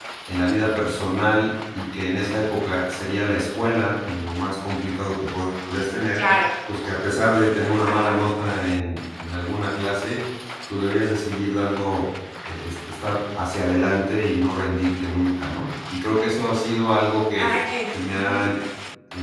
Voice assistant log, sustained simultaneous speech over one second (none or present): none